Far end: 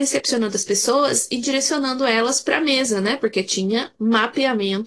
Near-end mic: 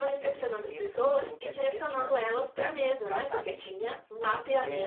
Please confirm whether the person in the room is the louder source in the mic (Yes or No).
No